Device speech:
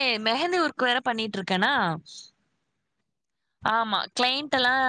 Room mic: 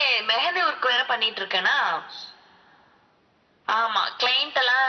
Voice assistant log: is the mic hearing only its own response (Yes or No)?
Yes